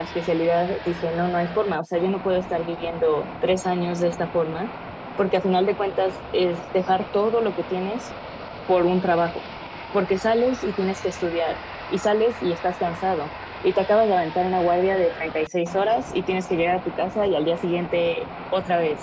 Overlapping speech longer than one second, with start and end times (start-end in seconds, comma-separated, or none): none